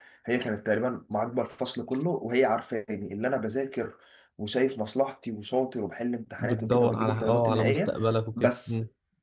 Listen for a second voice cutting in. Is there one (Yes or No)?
Yes